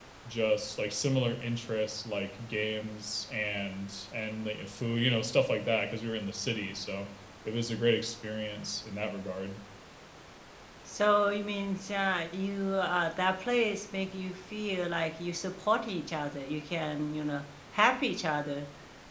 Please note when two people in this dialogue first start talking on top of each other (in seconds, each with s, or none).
none